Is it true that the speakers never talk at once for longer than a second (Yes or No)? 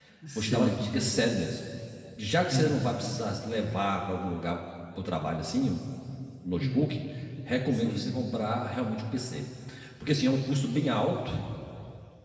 Yes